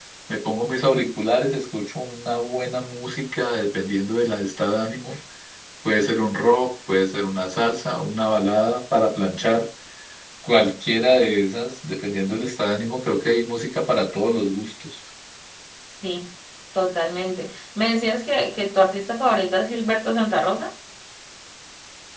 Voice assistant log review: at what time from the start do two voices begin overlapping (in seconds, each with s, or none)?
none